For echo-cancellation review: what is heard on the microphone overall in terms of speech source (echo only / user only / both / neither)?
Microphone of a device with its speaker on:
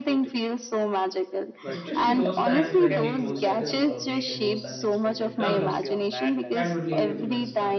both